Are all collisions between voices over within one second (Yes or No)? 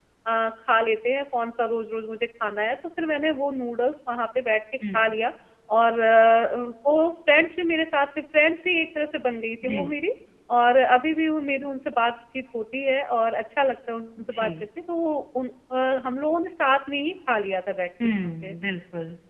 Yes